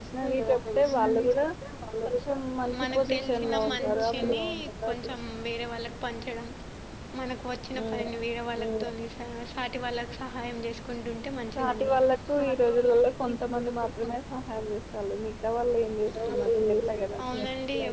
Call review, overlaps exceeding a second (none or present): present